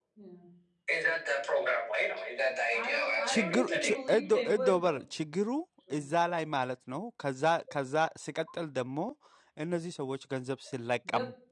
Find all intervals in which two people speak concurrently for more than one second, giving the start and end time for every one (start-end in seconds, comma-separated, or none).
3.3-5.0